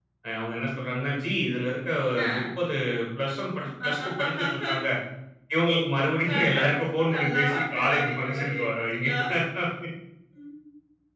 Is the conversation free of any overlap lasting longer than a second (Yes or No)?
No